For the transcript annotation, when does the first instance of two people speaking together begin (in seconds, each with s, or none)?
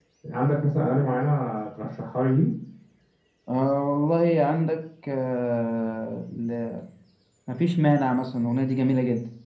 none